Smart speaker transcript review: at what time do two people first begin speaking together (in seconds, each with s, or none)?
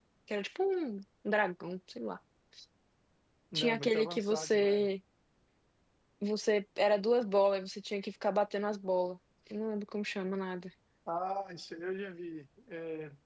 3.5 s